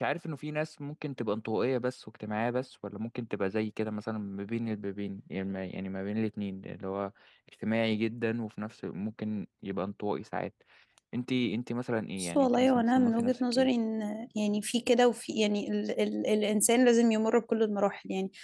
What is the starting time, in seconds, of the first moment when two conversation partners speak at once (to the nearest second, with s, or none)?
12 s